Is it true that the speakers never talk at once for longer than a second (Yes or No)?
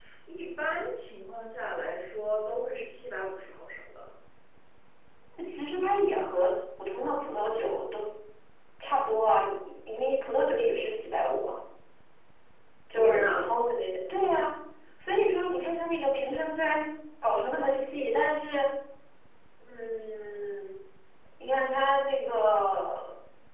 Yes